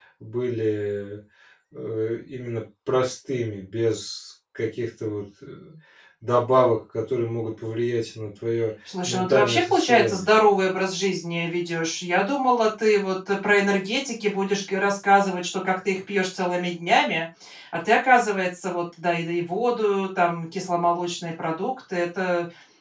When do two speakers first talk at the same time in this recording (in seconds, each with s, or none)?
8.9 s